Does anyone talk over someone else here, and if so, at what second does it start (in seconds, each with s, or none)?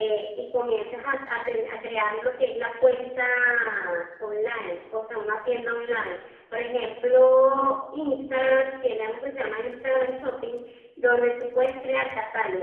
none